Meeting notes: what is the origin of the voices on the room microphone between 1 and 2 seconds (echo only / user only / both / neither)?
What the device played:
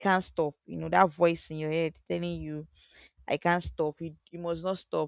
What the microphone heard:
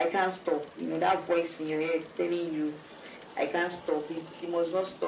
echo only